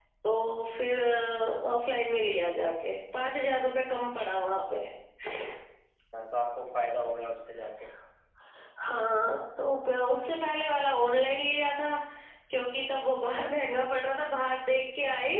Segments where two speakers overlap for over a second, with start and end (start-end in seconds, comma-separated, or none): none